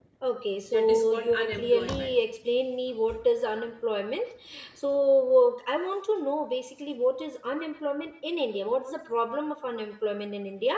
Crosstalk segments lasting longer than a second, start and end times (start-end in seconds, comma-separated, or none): 0.7-2.2